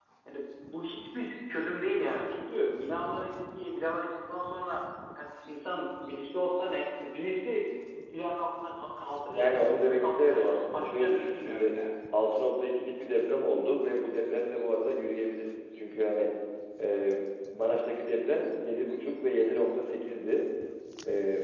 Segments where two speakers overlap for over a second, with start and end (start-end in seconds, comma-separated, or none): 9.4-11.8